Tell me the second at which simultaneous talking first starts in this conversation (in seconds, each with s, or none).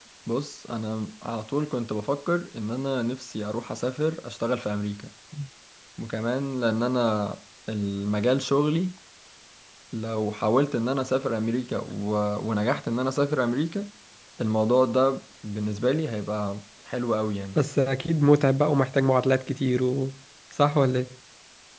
none